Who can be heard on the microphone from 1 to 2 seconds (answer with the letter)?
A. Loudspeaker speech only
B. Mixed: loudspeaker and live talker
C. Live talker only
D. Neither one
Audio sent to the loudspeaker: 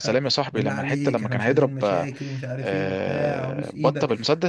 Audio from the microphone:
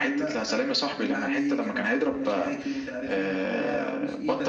A